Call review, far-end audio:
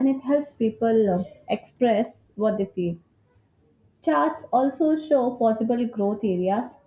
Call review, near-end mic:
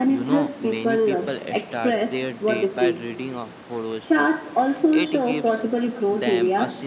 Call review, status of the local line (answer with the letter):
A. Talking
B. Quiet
A